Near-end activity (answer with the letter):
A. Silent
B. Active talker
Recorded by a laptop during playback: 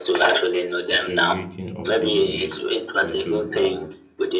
B